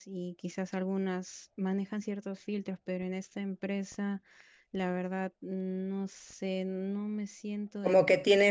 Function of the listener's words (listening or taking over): taking over